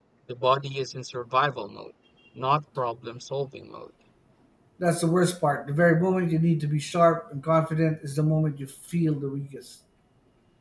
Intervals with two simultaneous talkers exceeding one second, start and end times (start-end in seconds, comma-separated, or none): none